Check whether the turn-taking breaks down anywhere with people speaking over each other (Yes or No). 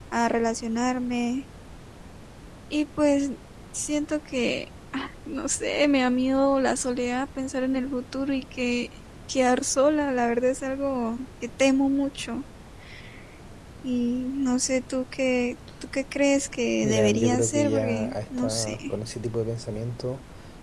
Yes